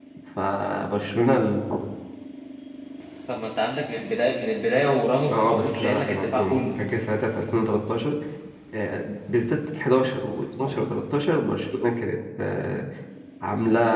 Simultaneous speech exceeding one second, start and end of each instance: 5.3-6.6

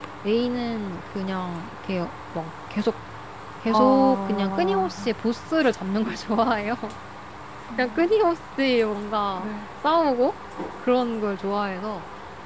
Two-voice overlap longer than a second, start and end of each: 3.6-4.9

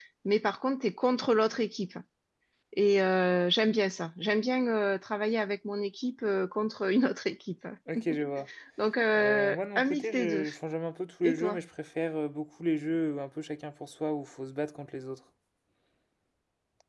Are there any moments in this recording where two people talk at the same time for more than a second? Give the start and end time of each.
9.1-10.4

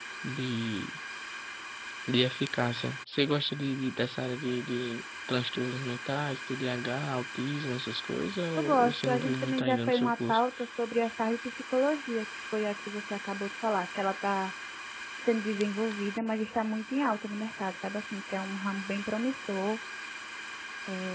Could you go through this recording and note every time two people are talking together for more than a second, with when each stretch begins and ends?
8.6-10.4

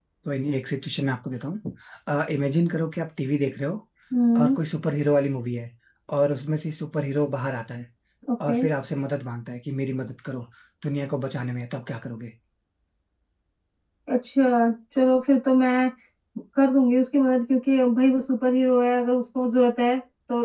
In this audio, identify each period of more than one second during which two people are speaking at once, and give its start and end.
none

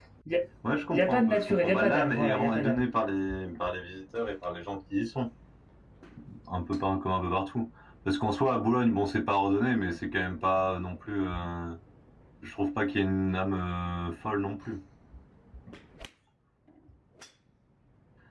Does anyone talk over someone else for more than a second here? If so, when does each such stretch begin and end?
0.9-2.8

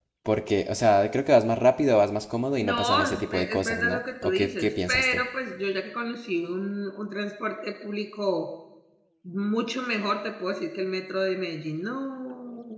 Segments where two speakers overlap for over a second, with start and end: 2.6-5.2

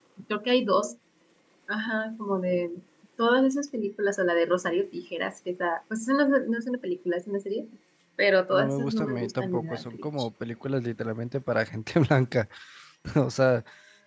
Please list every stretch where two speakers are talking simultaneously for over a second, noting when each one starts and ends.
8.5-10.3

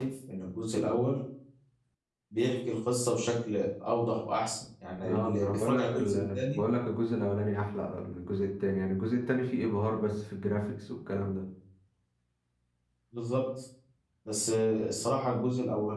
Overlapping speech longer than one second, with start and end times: 5.0-6.6

